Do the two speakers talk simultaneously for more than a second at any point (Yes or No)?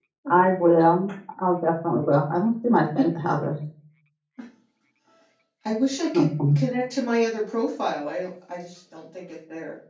No